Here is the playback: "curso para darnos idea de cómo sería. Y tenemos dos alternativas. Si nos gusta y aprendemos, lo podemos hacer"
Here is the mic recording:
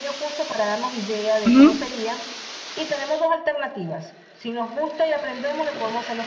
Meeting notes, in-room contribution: present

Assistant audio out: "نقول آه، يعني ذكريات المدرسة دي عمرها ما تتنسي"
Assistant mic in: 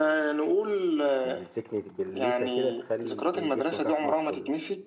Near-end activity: present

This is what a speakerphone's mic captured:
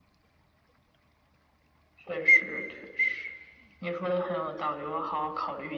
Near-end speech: none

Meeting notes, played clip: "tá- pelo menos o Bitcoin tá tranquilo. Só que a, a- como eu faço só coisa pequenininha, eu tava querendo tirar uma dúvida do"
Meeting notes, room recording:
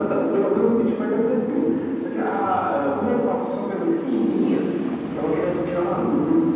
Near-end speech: none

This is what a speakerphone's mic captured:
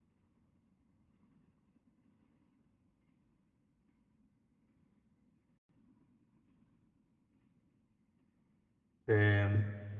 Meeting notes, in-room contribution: present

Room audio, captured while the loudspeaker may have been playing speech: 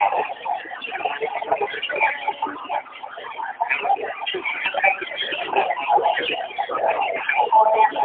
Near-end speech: none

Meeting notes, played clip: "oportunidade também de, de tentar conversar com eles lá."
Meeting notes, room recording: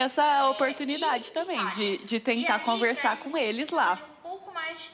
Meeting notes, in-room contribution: present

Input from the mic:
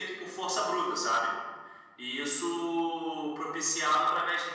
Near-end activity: none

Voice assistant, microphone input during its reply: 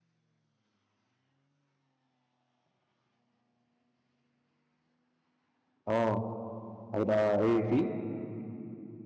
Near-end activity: present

